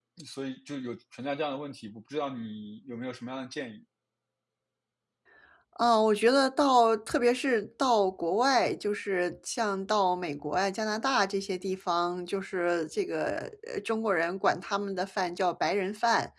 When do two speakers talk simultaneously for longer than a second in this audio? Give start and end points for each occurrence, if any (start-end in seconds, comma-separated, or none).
none